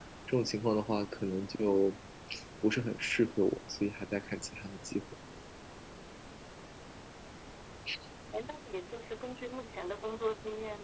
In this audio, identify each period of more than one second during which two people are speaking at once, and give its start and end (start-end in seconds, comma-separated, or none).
none